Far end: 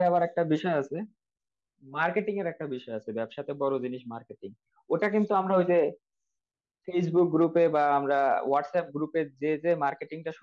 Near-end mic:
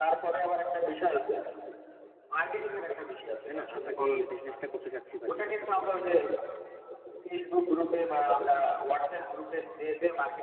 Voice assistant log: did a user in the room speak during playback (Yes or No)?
Yes